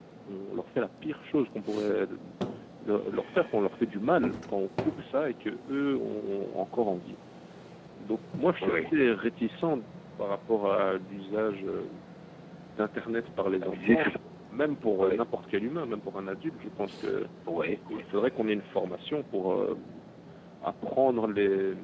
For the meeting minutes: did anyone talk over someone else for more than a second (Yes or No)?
No